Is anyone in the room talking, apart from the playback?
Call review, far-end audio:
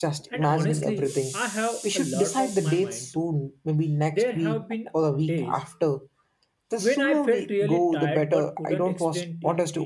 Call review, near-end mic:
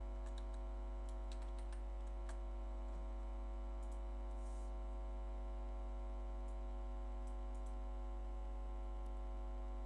No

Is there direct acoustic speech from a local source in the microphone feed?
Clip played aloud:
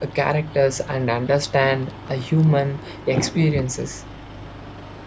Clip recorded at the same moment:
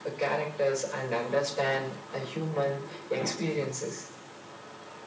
No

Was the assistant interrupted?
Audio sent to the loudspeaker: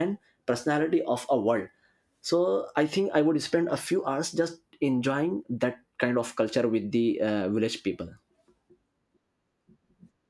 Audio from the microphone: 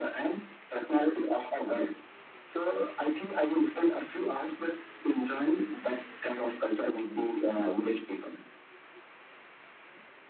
No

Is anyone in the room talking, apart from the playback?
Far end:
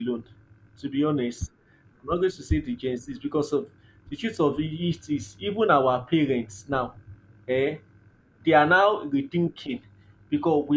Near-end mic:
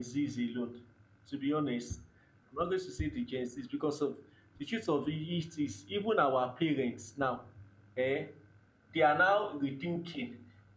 No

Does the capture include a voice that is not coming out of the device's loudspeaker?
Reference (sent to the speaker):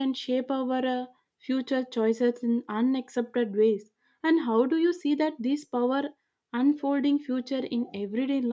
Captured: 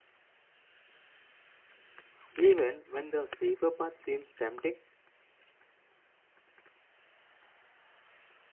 Yes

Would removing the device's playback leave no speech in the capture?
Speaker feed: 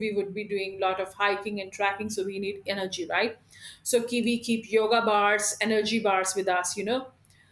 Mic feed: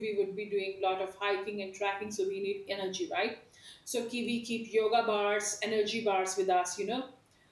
Yes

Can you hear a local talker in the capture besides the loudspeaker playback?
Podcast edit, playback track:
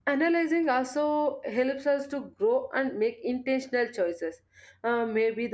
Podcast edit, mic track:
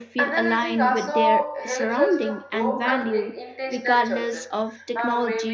Yes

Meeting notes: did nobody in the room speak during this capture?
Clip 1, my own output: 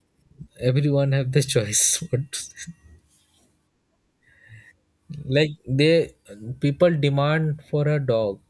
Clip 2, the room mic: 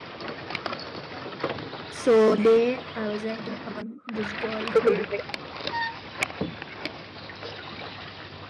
No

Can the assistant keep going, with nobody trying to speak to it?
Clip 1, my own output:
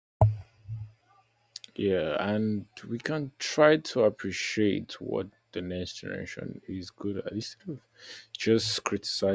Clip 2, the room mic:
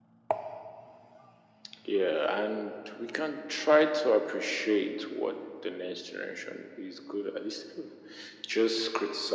Yes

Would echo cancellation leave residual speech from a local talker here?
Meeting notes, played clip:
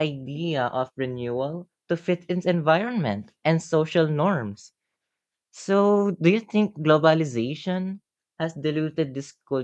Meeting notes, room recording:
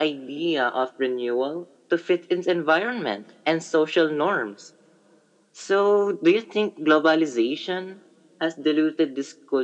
No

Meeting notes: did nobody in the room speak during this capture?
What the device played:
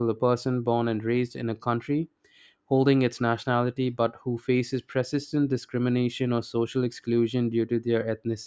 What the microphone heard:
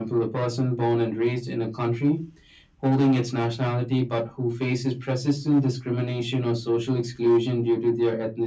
Yes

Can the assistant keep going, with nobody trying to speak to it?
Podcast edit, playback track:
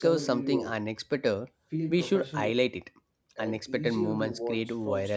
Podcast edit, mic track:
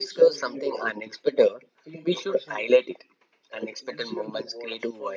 Yes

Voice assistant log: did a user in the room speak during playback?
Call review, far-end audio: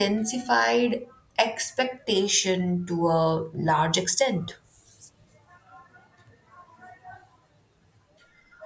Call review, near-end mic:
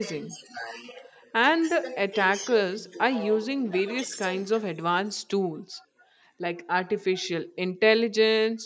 Yes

